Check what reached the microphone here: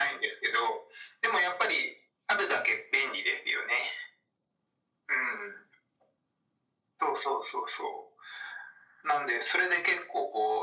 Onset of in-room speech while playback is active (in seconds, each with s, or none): none